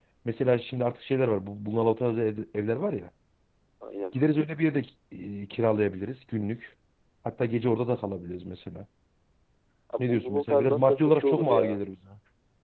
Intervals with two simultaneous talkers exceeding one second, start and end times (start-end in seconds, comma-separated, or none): 10.0-11.8